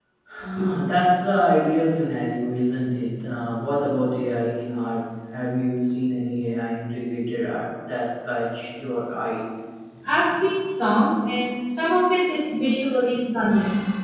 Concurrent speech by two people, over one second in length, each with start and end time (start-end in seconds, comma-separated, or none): none